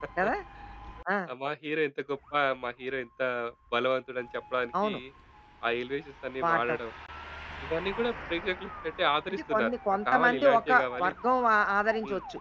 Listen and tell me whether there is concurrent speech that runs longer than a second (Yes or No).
Yes